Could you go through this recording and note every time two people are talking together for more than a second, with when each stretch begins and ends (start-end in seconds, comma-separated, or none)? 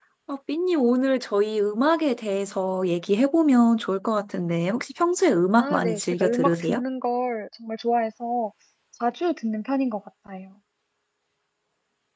5.6-6.8